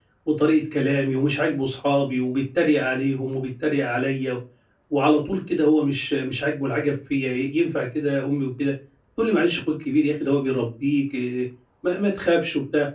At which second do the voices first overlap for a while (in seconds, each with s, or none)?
none